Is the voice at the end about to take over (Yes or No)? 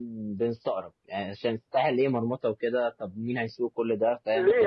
Yes